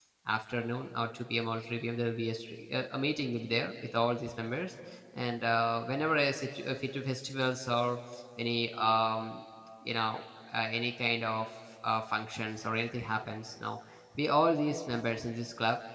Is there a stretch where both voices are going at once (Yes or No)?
No